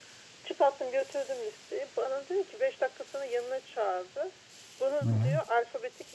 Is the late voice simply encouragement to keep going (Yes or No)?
Yes